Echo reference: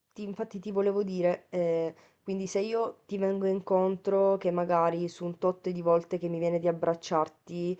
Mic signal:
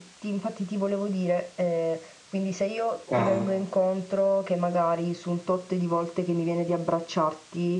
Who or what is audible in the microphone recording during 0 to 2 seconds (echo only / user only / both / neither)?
echo only